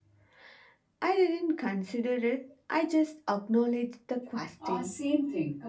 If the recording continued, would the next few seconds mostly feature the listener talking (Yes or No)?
Yes